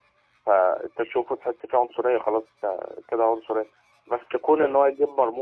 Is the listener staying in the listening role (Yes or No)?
Yes